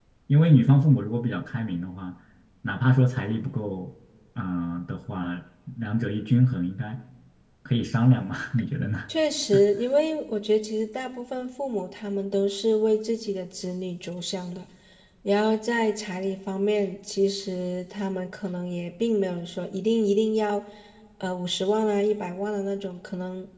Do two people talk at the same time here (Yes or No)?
No